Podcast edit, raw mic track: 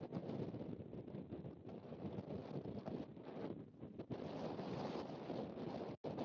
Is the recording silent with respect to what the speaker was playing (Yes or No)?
Yes